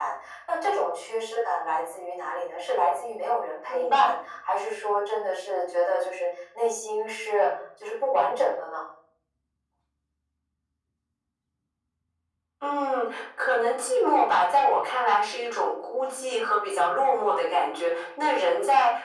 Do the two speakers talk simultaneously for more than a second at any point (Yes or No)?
No